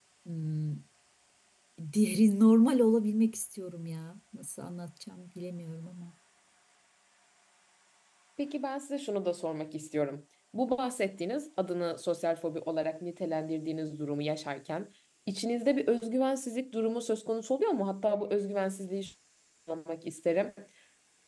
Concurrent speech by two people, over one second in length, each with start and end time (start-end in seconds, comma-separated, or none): none